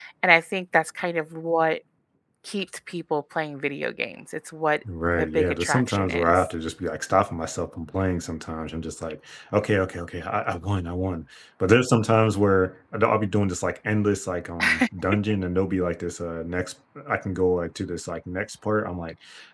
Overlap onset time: 5.1 s

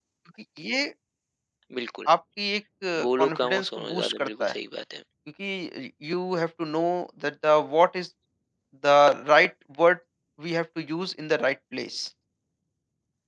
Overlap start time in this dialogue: 3.2 s

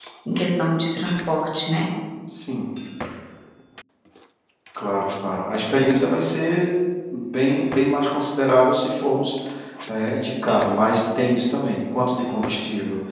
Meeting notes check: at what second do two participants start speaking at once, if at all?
none

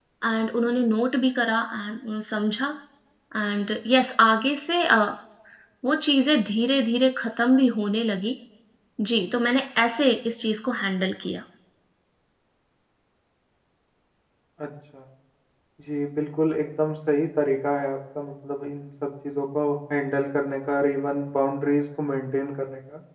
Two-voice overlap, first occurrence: none

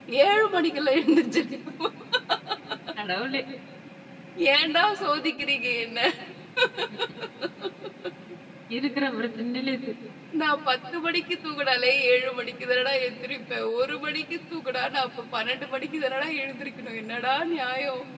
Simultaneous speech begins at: none

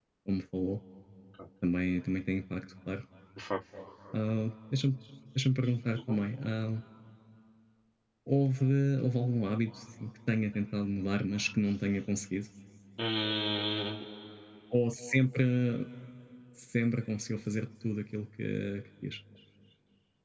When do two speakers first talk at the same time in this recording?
none

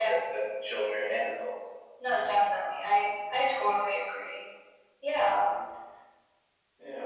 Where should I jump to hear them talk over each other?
none

